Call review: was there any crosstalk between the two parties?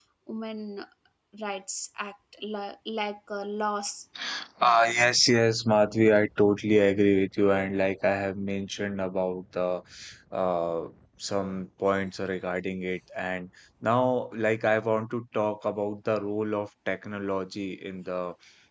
No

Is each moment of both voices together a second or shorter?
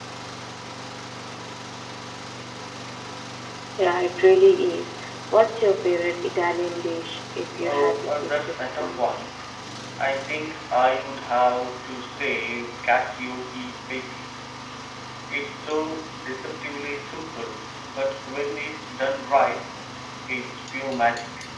No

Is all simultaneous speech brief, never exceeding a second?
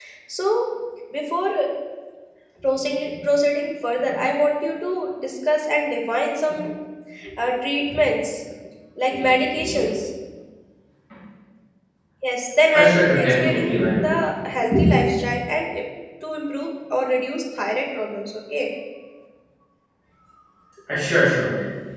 No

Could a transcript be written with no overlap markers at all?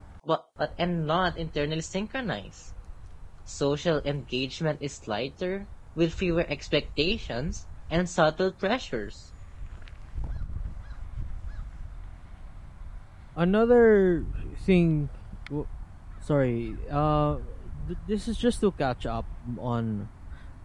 Yes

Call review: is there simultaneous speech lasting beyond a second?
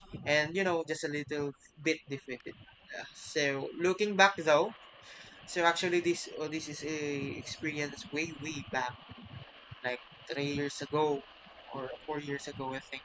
No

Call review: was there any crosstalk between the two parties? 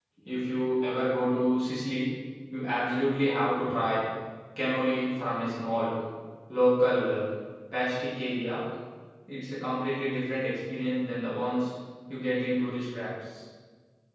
No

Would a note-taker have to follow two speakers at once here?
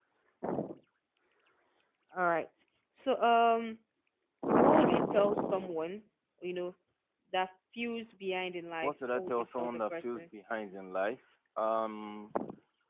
Yes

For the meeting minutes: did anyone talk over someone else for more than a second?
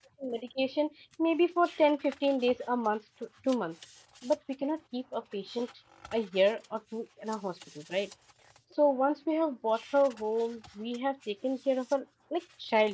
No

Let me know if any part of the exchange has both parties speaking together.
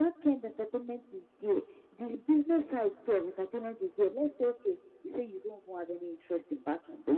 No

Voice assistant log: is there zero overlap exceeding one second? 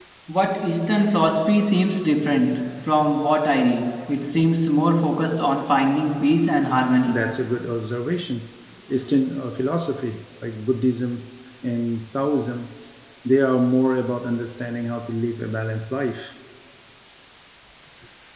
Yes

